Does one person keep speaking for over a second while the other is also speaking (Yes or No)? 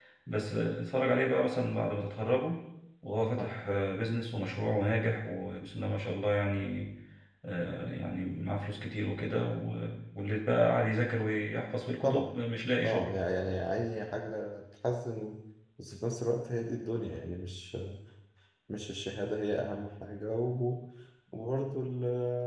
No